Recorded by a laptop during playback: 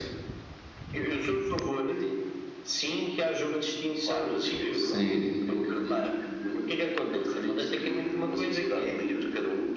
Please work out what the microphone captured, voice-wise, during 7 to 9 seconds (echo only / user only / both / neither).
echo only